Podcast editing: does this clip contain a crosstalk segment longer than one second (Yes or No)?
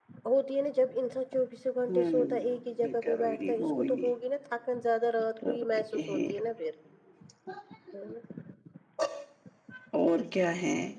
Yes